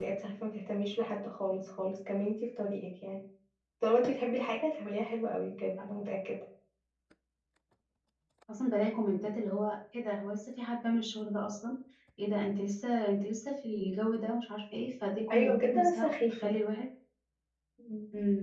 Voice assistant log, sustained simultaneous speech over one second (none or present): present